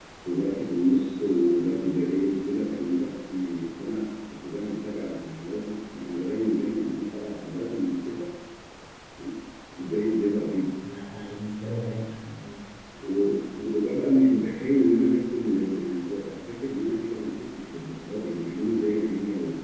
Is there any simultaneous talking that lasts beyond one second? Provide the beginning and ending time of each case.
none

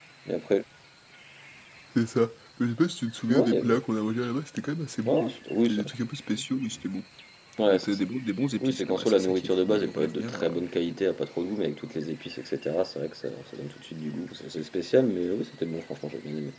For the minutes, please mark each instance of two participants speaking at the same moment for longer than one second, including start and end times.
8.6-10.4

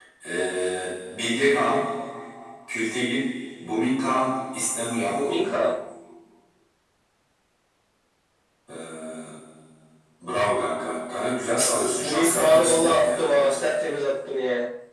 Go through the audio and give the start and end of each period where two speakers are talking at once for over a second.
11.9-13.6

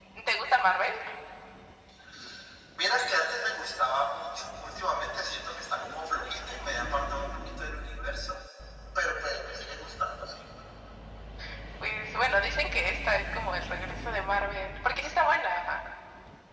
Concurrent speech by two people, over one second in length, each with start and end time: none

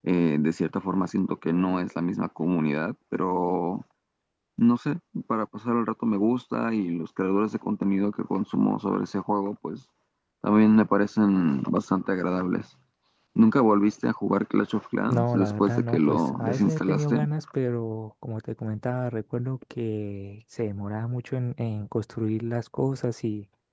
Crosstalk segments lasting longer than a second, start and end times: 15.0-17.2

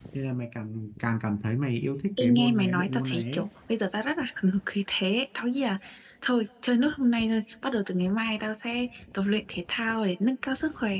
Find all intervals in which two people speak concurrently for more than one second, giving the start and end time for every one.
2.2-3.5

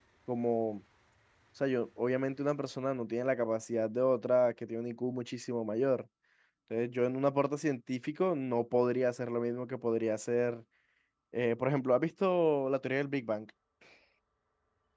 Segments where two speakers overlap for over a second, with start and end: none

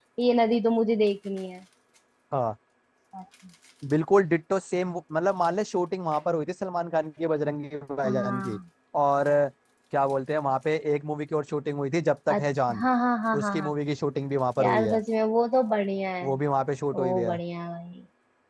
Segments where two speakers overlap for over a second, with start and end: none

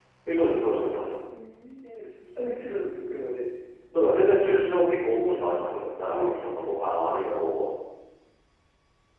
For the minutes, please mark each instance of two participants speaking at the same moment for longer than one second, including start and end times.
5.1-6.8

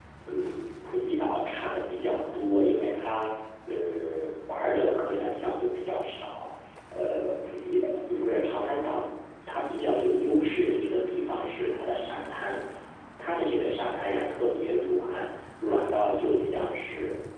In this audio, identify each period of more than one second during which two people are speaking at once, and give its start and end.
none

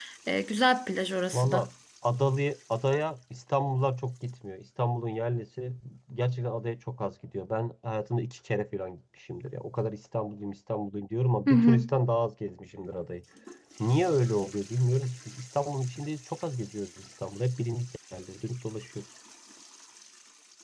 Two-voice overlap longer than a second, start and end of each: none

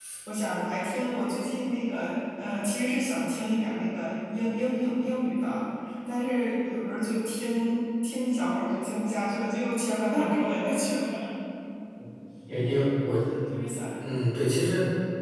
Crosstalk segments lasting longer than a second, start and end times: none

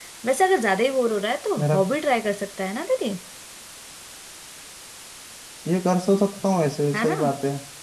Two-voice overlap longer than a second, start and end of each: none

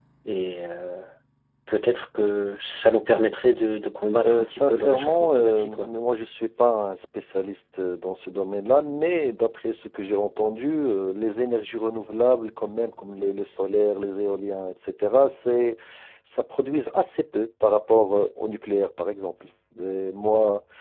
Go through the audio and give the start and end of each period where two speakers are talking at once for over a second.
4.2-5.9

